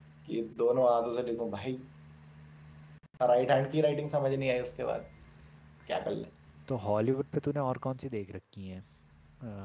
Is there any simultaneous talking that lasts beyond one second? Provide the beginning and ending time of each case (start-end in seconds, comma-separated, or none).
none